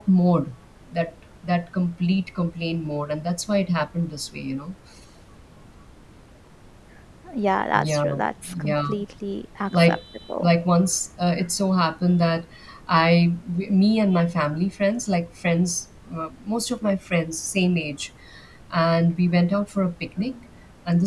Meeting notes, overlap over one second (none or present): none